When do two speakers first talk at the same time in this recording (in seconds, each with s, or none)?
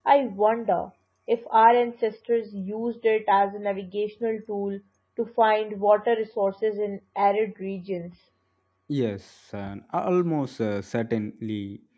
none